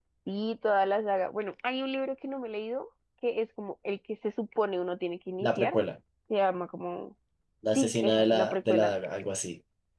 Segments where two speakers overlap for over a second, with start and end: 7.7-8.9

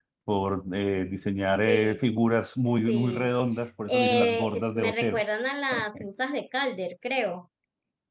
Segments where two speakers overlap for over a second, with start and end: 3.9-5.2

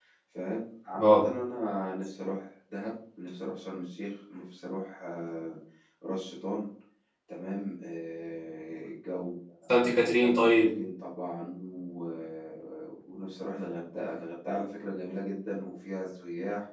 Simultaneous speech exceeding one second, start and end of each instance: none

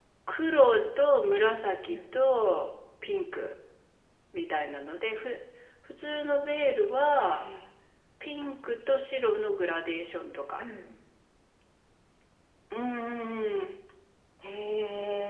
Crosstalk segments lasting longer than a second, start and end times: none

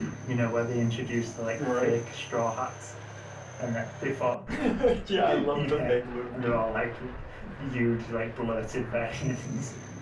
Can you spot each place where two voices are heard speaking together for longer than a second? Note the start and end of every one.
5.2-6.6

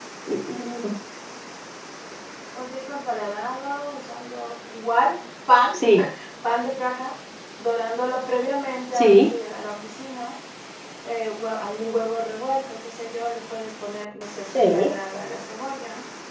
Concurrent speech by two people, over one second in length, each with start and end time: none

